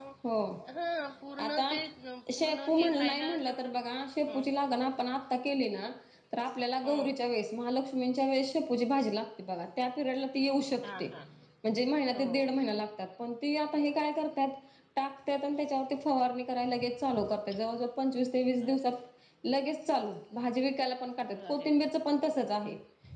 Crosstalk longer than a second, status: present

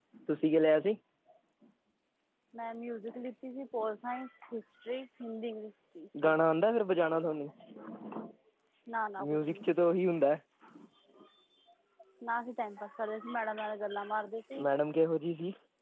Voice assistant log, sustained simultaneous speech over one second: none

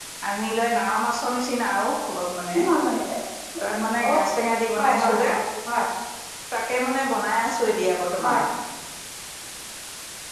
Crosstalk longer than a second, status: none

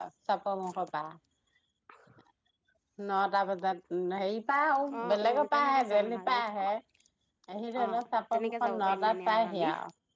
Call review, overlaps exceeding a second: present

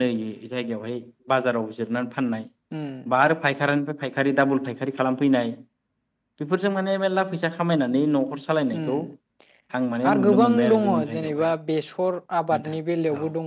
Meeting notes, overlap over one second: present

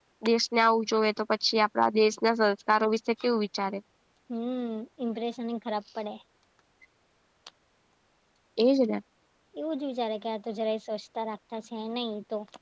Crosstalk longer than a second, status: none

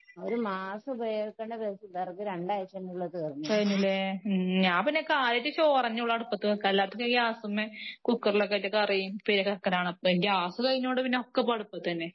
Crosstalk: none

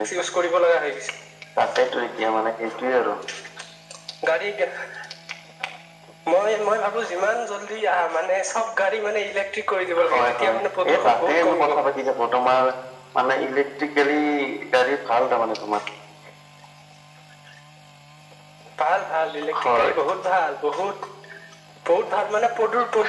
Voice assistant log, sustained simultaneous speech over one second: present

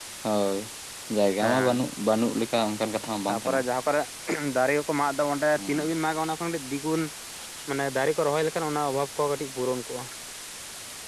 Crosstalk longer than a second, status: none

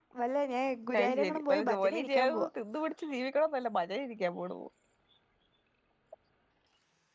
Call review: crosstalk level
present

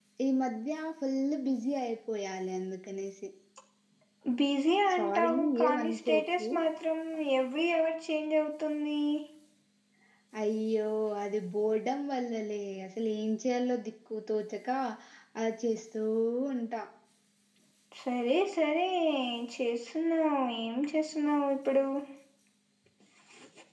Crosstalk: present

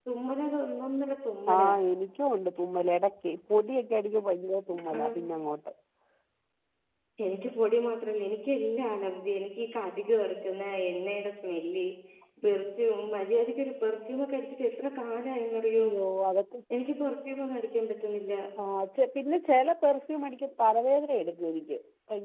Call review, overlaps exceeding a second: none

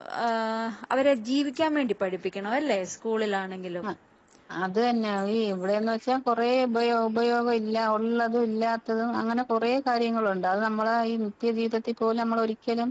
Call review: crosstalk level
none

